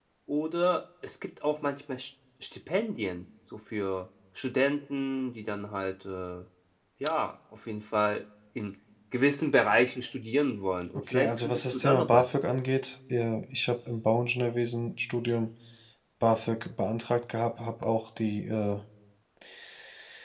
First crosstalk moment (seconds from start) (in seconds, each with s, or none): 11.0 s